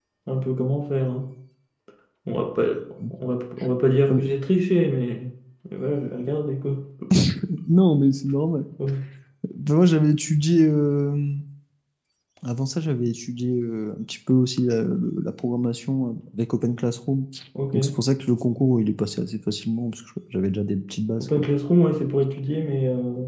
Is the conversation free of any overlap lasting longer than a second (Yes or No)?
Yes